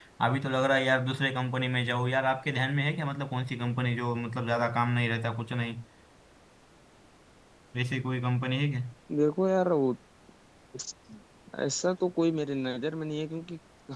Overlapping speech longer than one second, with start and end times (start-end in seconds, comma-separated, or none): none